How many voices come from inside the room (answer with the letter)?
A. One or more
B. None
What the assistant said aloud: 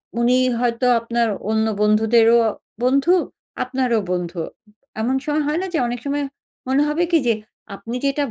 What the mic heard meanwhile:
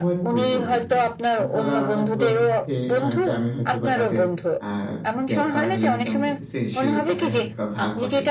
A